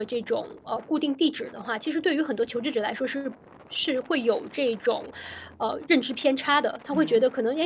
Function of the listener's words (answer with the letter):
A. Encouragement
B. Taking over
A